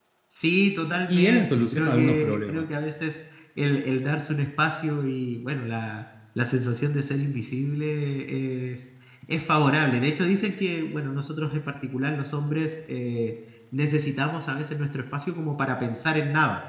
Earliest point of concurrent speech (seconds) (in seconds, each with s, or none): 1.1 s